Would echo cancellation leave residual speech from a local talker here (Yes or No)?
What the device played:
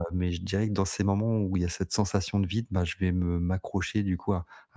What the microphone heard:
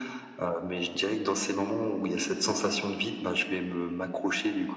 No